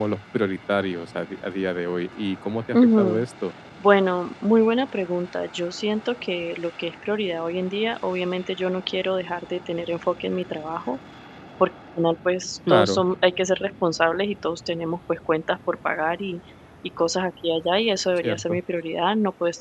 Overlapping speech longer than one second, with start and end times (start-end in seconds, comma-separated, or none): none